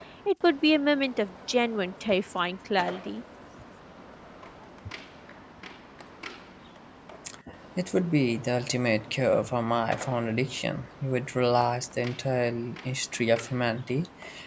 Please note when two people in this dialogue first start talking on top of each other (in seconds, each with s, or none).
none